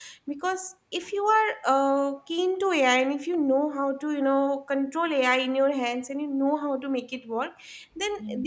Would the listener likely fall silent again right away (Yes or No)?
Yes